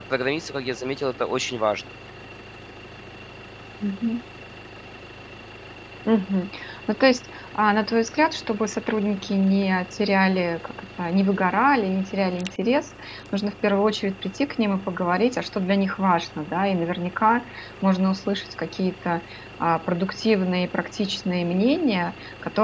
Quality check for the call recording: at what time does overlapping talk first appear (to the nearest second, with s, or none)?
none